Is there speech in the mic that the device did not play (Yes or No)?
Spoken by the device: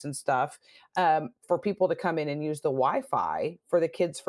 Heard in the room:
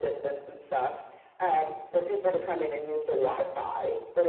No